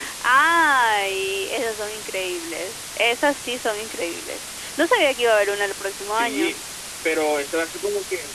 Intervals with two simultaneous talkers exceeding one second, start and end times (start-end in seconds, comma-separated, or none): none